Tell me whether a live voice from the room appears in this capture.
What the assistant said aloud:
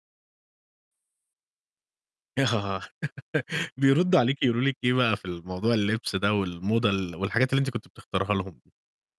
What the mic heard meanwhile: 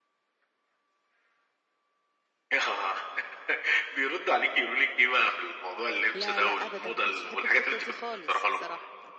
Yes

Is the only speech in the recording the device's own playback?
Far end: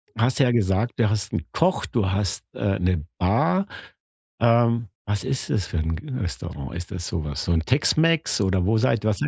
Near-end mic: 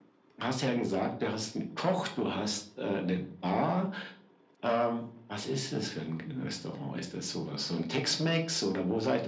Yes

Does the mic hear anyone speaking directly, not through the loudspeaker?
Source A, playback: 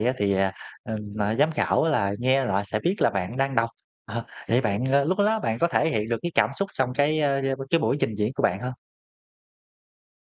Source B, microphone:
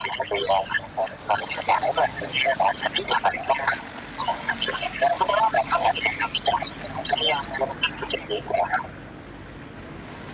No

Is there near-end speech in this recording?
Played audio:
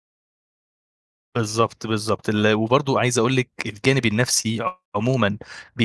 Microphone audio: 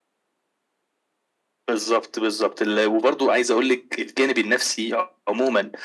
No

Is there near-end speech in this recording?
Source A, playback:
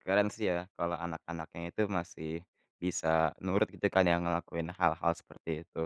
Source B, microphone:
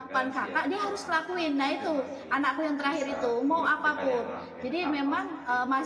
Yes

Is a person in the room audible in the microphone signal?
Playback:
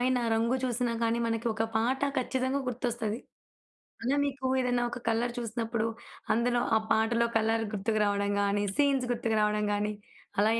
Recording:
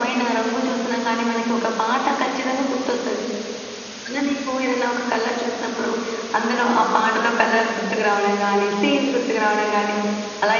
No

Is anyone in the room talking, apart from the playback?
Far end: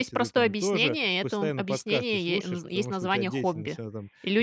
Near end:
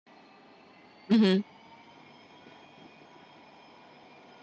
Yes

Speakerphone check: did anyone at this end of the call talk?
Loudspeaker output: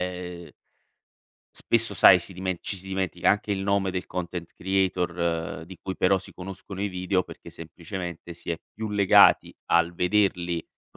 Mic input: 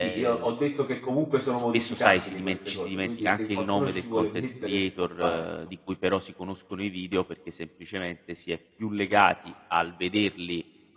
Yes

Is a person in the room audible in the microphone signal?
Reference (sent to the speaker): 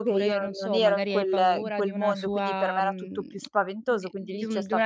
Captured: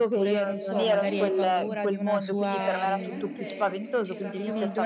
Yes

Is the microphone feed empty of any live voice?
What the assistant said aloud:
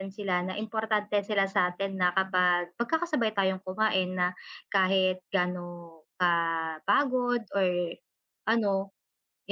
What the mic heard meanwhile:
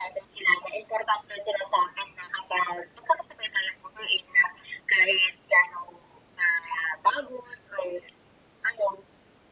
Yes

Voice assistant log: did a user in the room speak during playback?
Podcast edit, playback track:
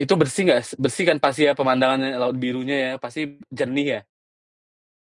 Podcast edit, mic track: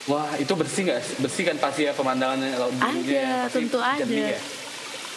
Yes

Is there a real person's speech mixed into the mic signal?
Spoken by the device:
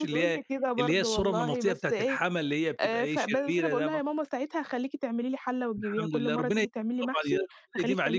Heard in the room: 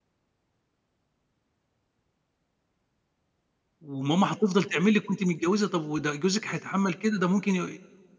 Yes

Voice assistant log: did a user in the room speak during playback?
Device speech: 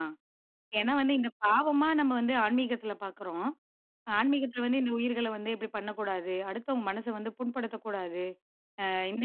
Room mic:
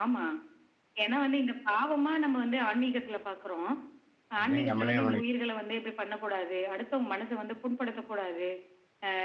Yes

